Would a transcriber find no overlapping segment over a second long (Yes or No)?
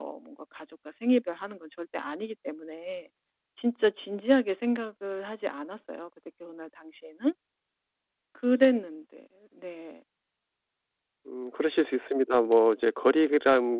Yes